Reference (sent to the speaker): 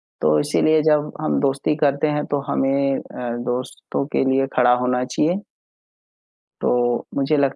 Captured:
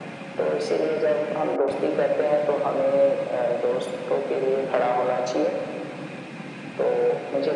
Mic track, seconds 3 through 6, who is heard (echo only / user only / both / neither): echo only